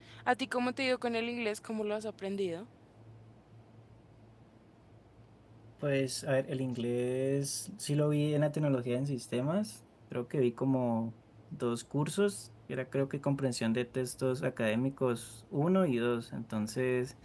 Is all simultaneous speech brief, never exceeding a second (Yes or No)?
Yes